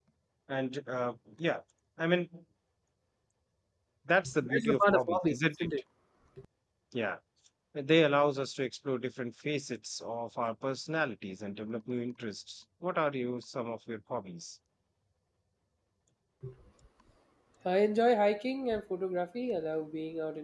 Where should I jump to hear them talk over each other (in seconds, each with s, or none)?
4.4 s